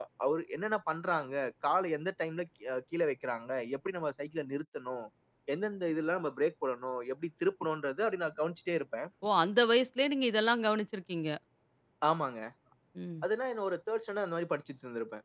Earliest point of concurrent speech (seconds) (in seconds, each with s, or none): none